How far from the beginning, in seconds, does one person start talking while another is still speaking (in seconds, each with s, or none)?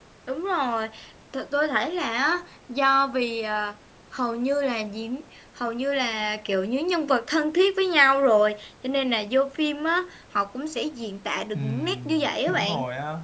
11.5 s